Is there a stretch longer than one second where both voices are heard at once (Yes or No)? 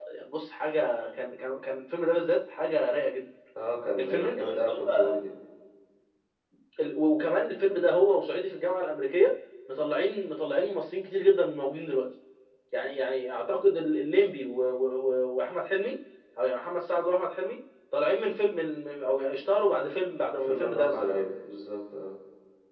Yes